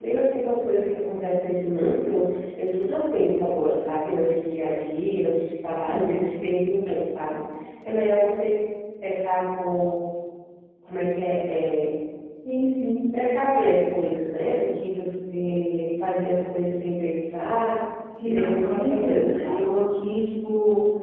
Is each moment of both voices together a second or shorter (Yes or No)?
No